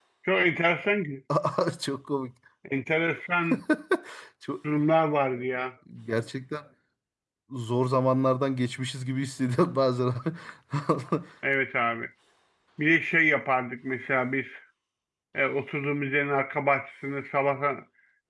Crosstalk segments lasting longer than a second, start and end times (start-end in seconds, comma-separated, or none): none